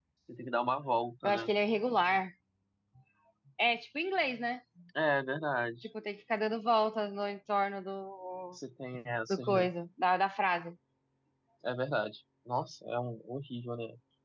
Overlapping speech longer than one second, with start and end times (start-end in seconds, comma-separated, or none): none